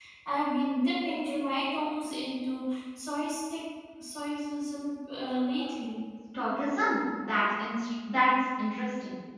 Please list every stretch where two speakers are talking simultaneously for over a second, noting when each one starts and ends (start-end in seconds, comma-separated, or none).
none